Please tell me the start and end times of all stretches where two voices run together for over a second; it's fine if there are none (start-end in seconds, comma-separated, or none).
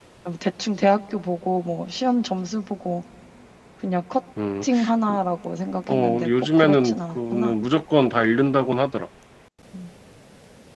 5.9-7.5